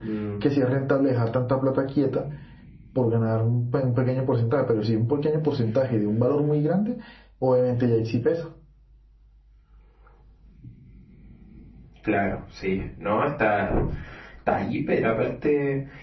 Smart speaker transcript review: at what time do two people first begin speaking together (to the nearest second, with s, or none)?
none